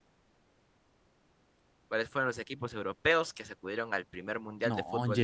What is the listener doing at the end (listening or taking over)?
taking over